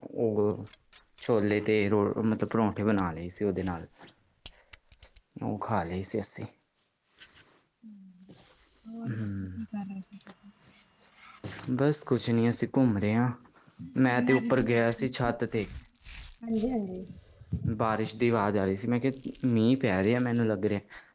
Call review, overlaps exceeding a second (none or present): none